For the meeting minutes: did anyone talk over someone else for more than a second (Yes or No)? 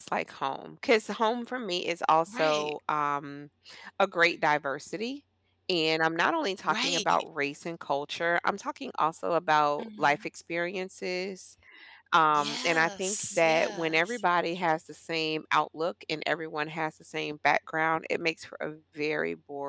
Yes